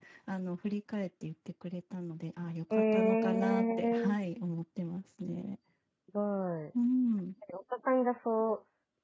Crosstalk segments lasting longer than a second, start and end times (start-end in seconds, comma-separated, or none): 2.7-4.1